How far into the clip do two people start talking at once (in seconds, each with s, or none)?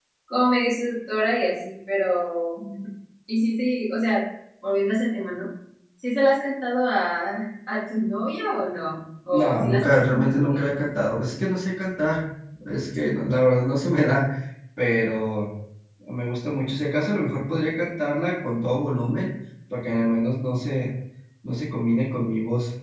9.3 s